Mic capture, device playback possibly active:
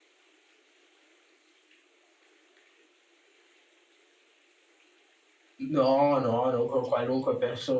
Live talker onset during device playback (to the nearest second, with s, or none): 6 s